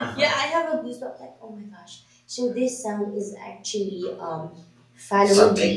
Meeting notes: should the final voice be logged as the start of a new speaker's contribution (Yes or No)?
No